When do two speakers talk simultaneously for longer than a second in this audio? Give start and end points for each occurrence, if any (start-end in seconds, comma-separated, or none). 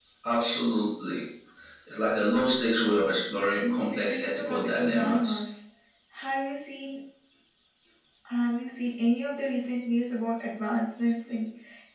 3.6-5.4